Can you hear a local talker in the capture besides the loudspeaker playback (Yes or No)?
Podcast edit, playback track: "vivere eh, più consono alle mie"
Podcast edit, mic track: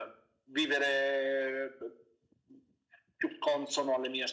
No